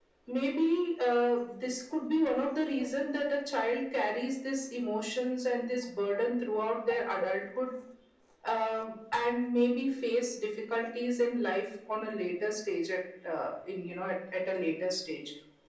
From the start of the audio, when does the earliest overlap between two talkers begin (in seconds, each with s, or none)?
none